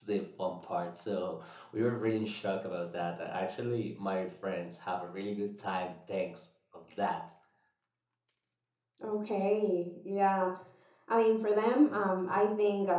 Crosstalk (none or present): none